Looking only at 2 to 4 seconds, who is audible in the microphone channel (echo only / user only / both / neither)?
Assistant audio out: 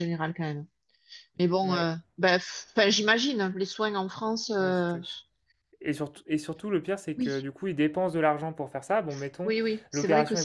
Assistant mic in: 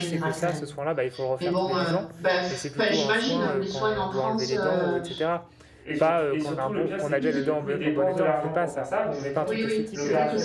both